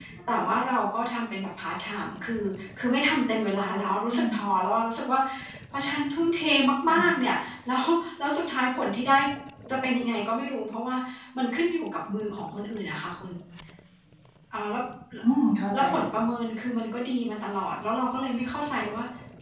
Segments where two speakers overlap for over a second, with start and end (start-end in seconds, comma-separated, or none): none